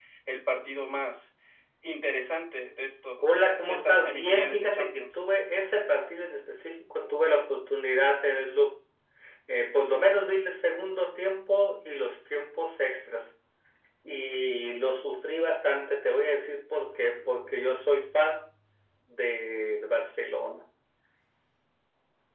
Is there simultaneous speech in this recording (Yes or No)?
Yes